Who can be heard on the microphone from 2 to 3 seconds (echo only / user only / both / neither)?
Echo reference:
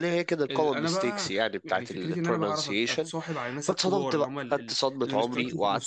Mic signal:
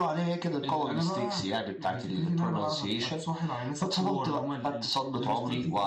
echo only